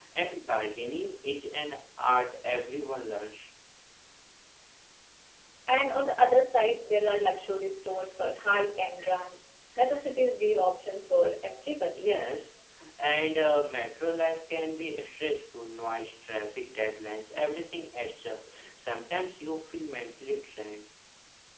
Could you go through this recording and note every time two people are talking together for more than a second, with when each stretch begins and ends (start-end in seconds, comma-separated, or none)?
none